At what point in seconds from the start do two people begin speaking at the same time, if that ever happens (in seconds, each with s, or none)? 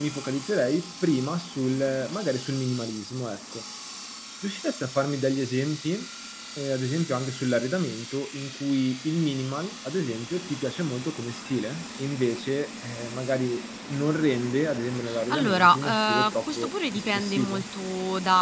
15.0 s